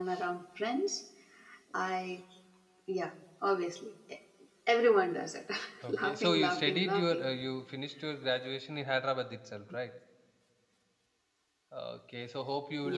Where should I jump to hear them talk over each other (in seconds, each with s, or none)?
5.9 s